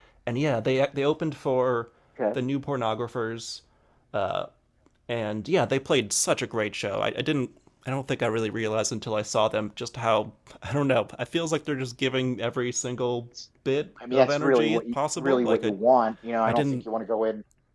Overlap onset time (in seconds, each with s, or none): 14.1 s